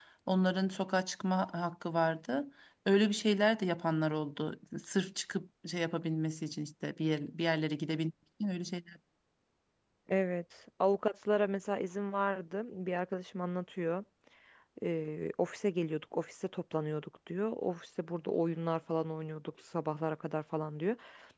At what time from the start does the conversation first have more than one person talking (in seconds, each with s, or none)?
none